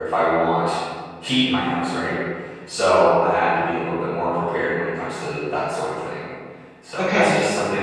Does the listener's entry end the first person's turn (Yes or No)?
No